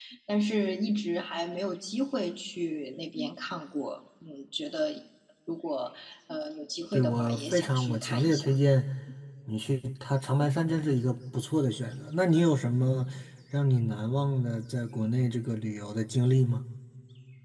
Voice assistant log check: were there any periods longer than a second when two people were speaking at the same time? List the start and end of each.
6.9-8.6

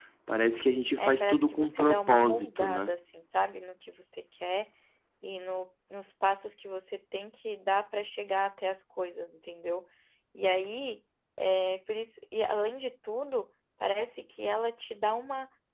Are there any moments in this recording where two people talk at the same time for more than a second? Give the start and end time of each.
1.0-2.9

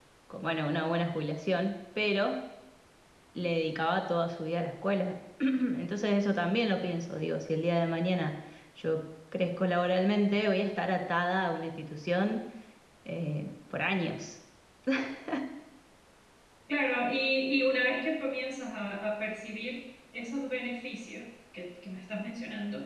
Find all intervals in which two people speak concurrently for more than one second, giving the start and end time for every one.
none

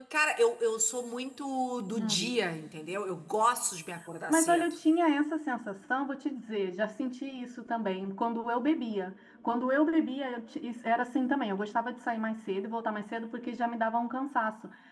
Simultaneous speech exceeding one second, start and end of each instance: none

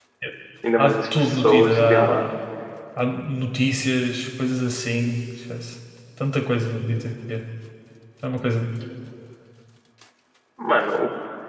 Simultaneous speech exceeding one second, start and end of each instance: 0.8-2.2

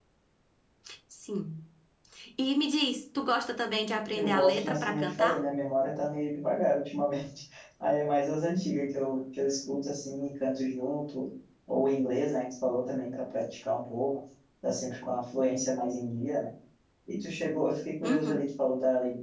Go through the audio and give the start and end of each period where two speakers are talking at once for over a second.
4.1-5.4

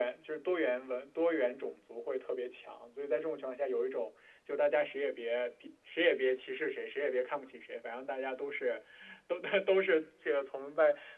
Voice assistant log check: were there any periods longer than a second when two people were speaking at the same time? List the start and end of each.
none

